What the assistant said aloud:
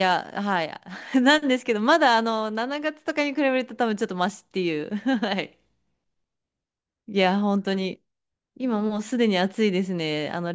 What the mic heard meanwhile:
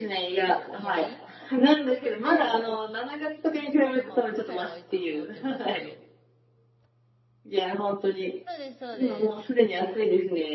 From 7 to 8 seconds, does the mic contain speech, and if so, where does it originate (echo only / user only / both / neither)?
echo only